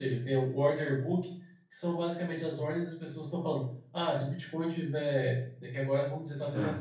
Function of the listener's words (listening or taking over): listening